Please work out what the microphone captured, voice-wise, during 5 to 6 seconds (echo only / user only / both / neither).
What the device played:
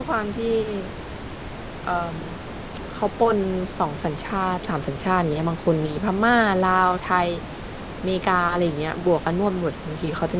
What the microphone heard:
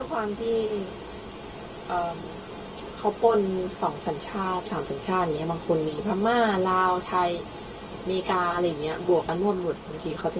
echo only